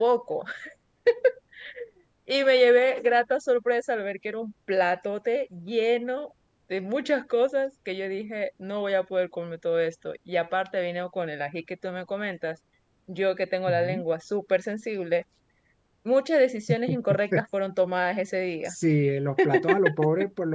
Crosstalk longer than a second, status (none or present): none